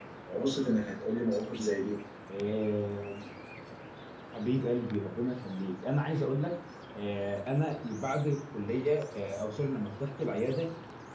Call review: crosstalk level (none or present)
none